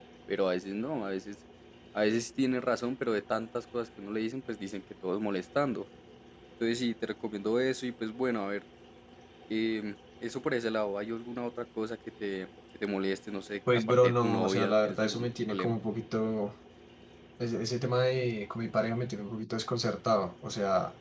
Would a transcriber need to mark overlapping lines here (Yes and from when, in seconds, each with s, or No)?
Yes, from 13.7 s